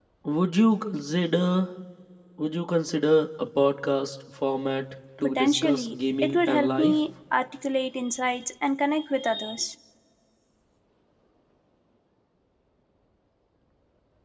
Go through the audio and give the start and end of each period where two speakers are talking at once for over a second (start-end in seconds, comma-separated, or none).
5.2-6.9